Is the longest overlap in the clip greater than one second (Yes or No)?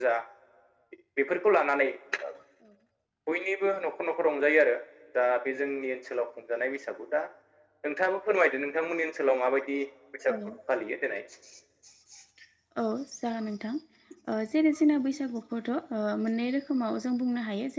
No